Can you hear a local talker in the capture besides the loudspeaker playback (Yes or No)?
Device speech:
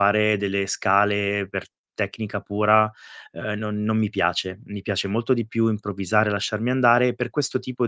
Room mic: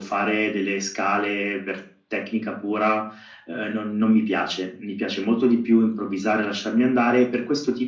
No